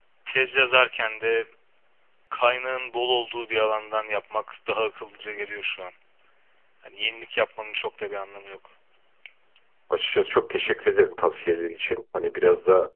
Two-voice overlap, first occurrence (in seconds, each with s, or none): none